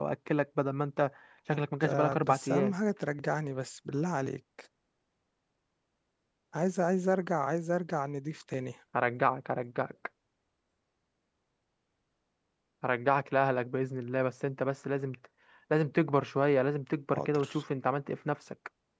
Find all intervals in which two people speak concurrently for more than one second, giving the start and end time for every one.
1.5-2.7

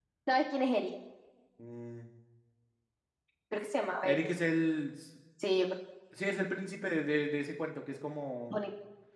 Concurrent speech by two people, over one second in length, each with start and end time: none

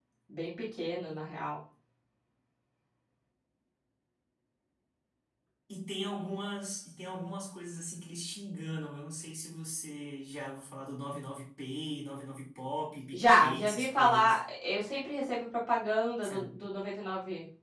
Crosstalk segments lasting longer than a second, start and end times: 13.1-14.4

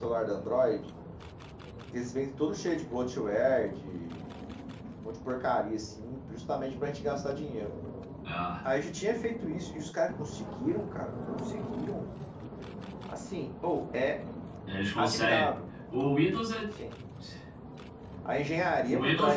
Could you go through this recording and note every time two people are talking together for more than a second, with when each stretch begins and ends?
none

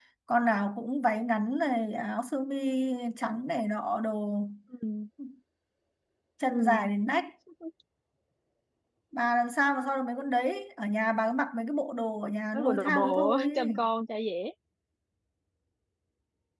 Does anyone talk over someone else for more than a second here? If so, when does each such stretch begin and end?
12.5-13.8

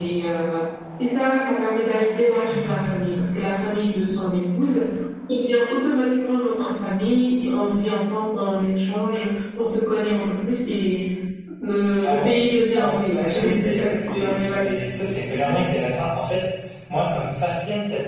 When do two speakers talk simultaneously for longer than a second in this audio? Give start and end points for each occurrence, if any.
12.7-14.6

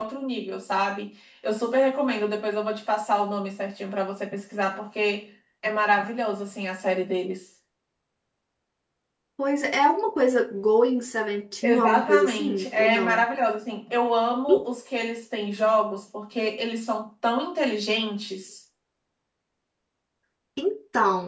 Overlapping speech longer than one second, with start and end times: 11.6-13.3

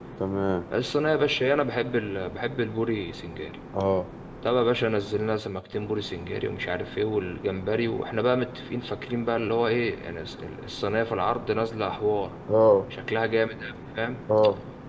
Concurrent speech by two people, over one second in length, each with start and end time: none

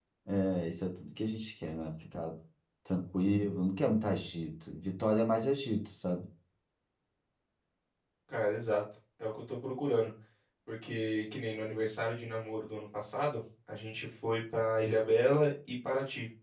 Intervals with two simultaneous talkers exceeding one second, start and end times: none

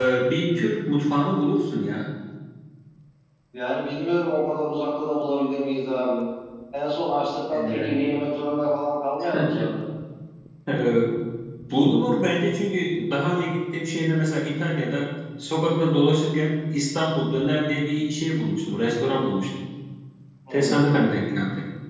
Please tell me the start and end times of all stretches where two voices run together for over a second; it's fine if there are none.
none

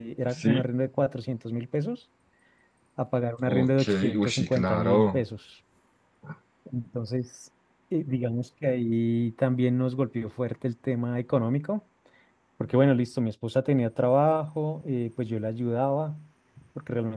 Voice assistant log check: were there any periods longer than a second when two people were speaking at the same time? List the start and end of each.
3.5-5.2

